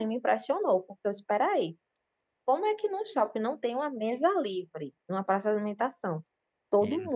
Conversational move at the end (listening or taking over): listening